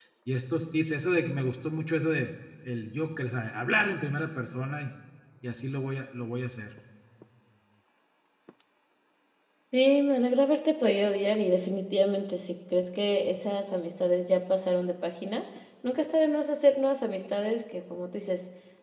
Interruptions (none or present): none